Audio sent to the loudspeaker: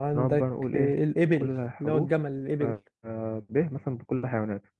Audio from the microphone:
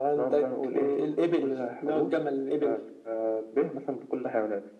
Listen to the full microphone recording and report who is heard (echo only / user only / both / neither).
echo only